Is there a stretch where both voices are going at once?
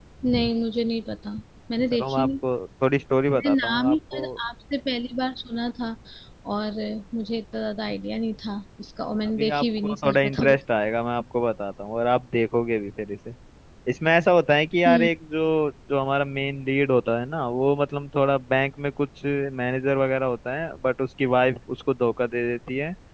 Yes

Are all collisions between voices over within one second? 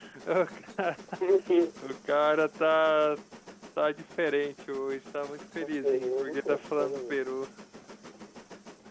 No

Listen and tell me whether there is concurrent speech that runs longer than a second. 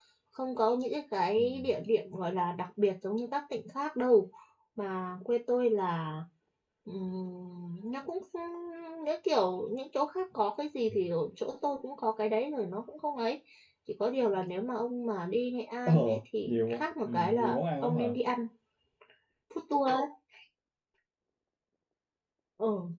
Yes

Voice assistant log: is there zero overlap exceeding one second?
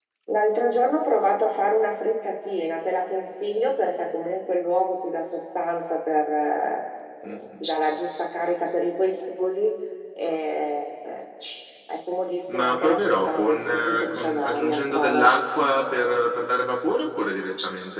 No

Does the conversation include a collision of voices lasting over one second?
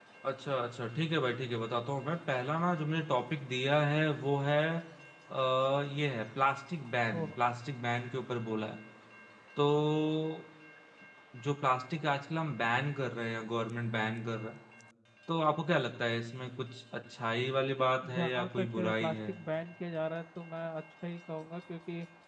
Yes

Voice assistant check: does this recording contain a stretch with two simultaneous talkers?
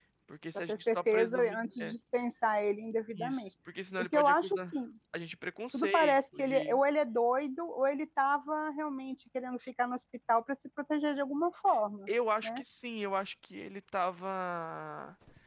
Yes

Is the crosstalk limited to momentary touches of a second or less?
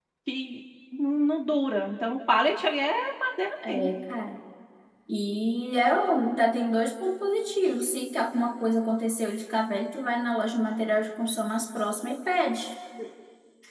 Yes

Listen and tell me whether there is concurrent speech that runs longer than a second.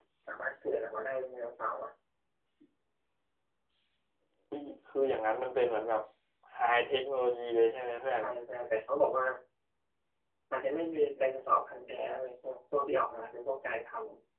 No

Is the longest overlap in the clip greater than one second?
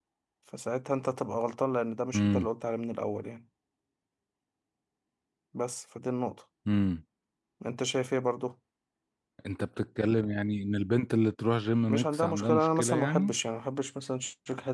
Yes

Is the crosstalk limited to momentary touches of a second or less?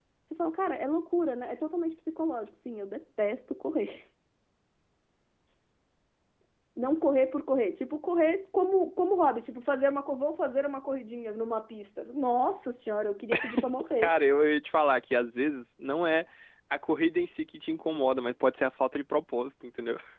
Yes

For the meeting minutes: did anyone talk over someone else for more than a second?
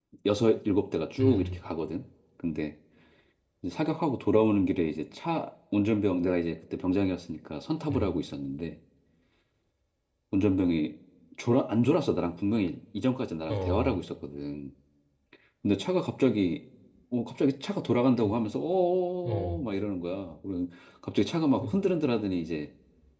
No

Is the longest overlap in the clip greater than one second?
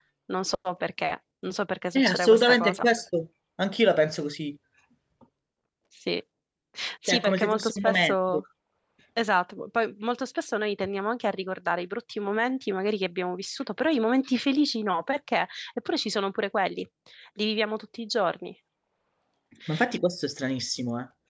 Yes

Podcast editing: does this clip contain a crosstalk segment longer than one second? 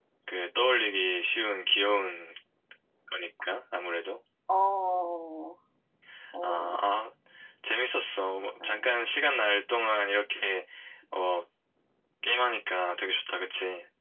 No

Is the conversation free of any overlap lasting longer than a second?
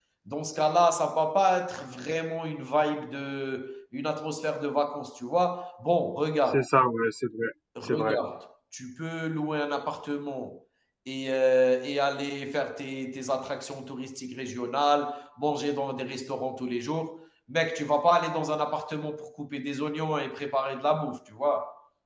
Yes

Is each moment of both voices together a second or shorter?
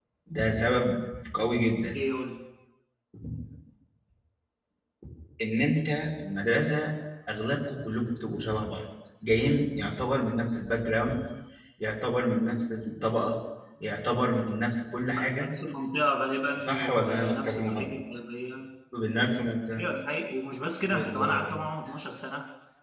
No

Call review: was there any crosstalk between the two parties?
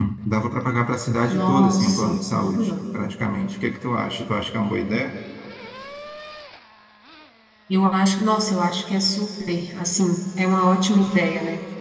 Yes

